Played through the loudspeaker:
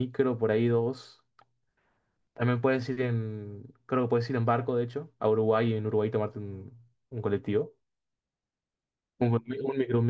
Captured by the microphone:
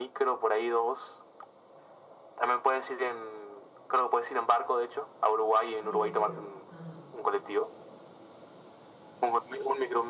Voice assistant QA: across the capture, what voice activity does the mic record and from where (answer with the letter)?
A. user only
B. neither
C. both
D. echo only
C